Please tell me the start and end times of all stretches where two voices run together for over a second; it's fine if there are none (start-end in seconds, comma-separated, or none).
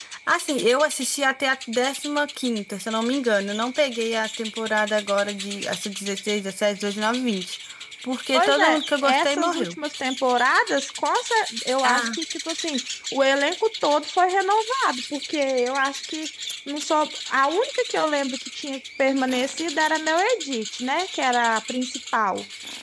8.3-9.8